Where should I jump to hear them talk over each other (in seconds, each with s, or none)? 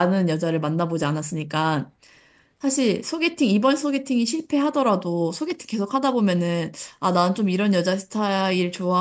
none